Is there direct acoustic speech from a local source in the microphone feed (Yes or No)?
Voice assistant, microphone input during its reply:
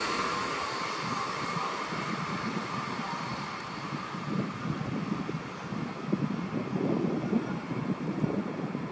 No